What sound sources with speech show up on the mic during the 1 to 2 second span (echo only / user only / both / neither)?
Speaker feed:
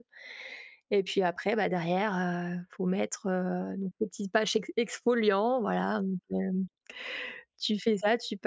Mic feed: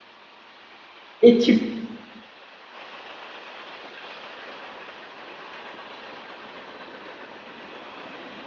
user only